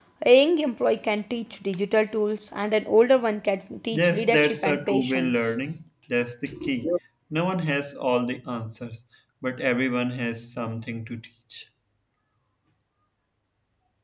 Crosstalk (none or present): present